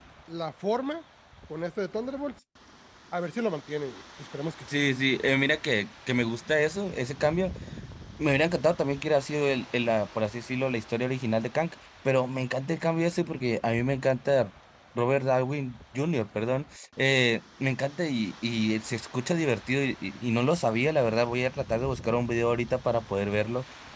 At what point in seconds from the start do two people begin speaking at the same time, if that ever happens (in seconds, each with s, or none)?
none